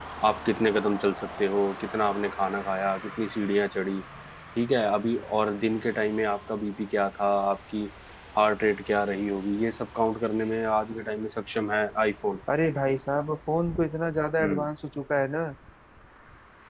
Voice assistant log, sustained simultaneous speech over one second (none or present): none